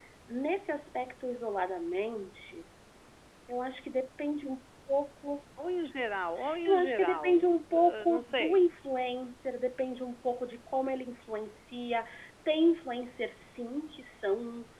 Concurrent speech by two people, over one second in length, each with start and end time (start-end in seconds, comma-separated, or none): 6.7-8.6